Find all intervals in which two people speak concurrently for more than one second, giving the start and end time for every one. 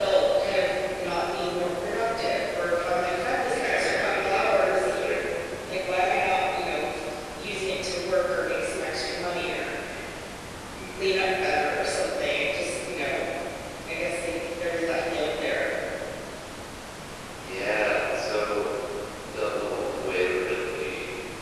3.5-4.9

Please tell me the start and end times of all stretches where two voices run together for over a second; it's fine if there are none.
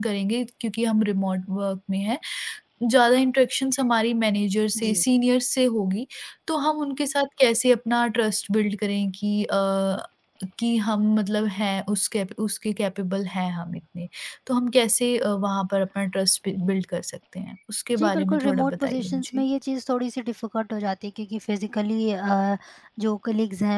18.0-19.4

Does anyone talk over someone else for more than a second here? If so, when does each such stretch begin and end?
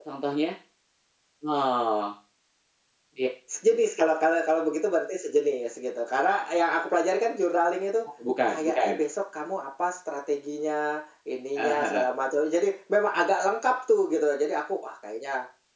none

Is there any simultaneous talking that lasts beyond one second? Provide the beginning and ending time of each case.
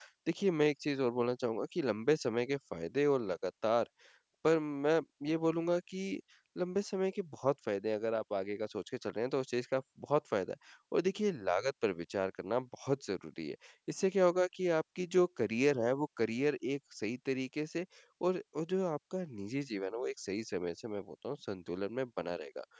none

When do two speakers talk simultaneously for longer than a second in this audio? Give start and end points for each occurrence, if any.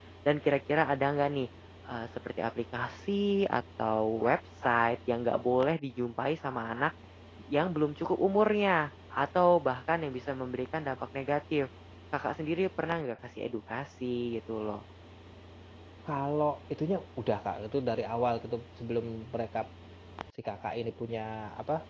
none

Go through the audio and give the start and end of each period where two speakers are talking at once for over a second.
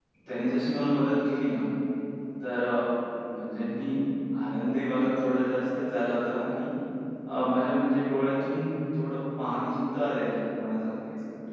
none

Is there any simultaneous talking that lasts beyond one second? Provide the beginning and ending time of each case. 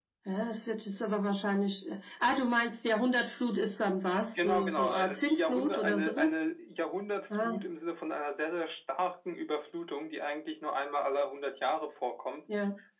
4.4-6.4

